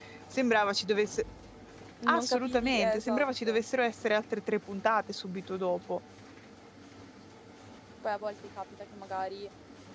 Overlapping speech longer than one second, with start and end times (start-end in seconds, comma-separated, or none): 2.1-3.5